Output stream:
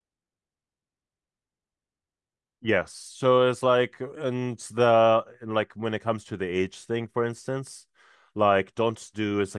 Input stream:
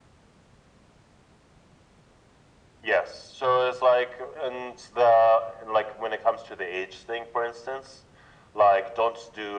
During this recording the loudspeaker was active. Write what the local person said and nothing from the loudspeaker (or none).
none